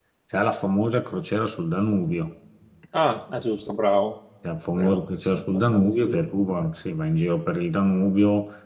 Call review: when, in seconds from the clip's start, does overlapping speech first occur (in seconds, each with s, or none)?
4.7 s